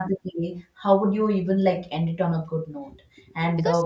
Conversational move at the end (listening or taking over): listening